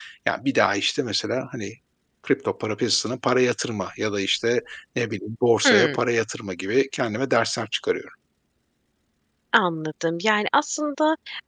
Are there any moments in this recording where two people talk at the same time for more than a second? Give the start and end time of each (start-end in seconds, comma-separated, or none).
none